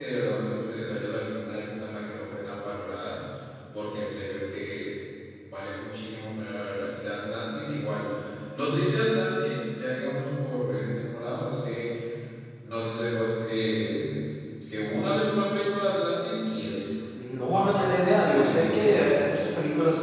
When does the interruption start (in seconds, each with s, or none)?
17.4 s